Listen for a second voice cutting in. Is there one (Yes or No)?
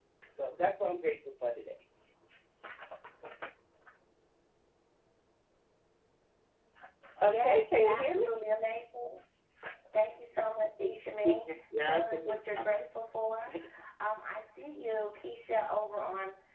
Yes